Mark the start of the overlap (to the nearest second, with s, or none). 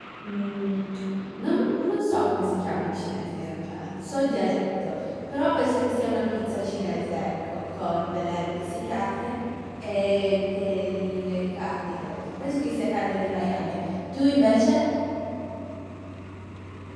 none